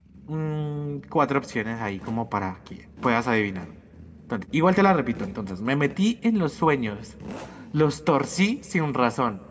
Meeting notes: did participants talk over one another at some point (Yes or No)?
No